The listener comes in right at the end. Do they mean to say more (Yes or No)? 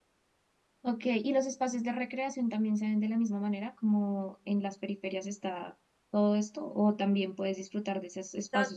No